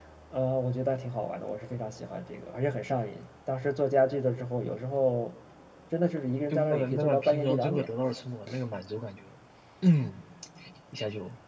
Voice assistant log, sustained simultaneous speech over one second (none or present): present